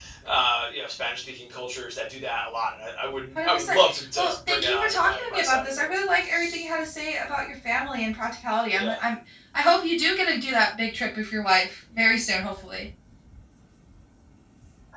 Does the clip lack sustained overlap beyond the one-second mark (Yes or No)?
No